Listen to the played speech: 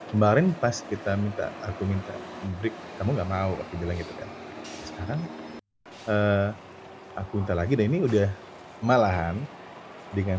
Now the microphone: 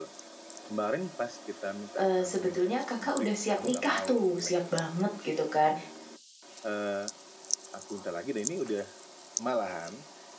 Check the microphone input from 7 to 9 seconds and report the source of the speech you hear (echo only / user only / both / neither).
echo only